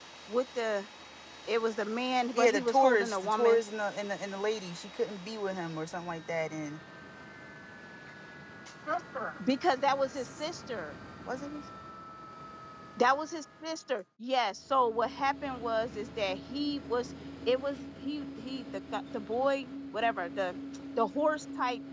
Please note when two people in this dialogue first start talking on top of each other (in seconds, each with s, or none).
2.3 s